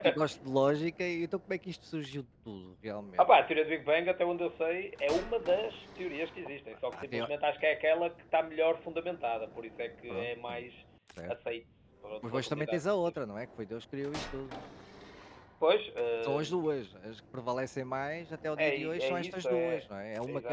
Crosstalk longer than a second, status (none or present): present